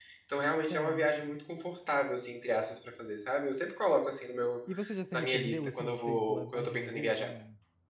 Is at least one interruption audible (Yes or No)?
Yes